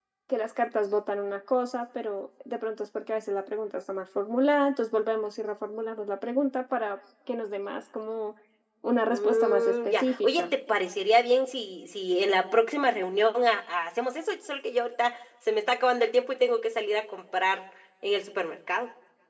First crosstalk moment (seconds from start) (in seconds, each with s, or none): 9.1 s